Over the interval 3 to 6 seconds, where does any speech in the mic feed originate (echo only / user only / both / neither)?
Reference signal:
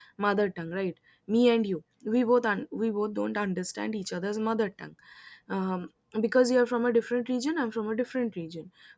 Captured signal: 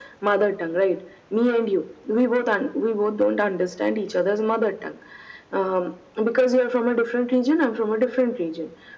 echo only